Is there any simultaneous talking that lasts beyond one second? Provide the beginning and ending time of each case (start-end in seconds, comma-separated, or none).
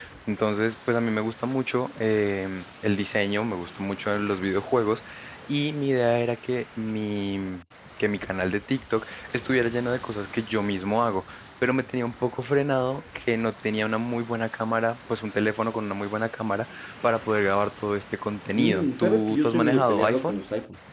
18.5-20.4